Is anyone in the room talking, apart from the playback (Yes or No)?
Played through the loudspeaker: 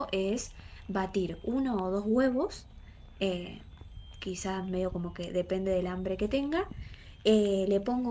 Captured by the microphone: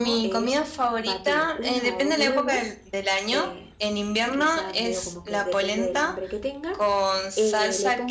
Yes